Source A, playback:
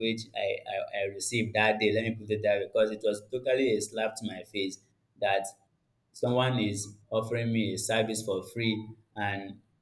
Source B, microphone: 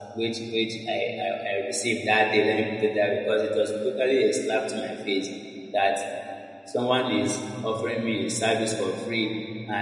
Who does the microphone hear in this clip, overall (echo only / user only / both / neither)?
echo only